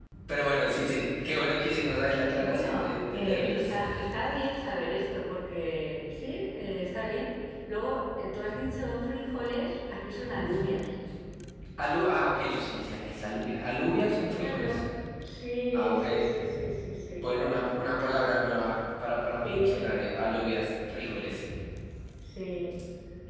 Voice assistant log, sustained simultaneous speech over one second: present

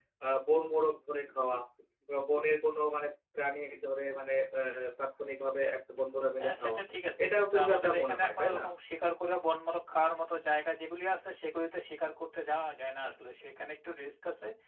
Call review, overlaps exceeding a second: present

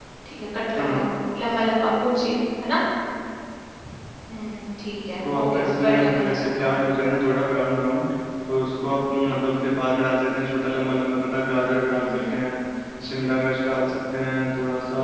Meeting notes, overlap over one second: present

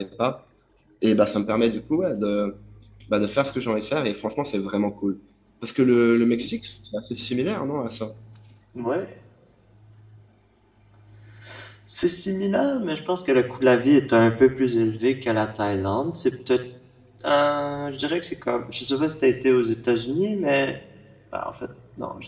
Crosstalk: none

